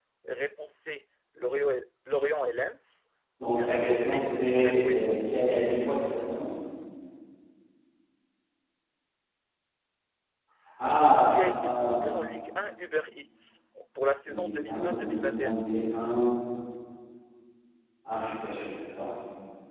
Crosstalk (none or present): present